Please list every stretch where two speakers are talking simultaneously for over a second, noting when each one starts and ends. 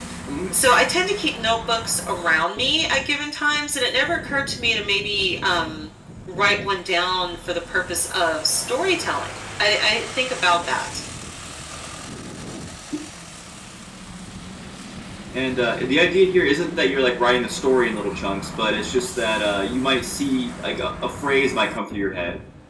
none

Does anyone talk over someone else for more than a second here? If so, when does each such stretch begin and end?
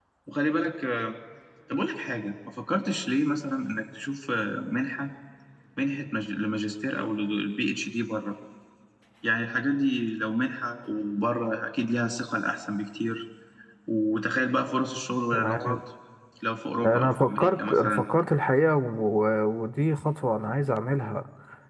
16.9-18.1

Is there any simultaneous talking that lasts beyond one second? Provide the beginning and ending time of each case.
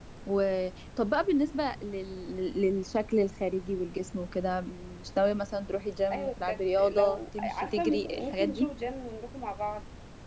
6.1-8.7

